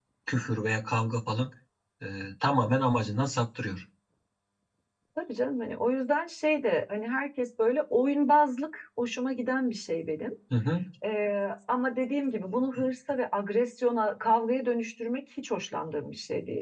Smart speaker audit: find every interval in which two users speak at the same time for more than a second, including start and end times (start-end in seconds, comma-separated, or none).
none